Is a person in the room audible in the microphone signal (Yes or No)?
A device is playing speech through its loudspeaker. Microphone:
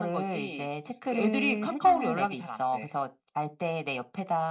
No